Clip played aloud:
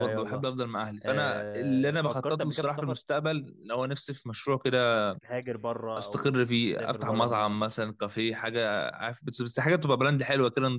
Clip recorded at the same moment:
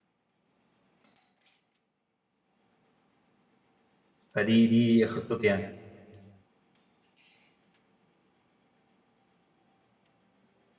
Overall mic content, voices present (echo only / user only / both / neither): user only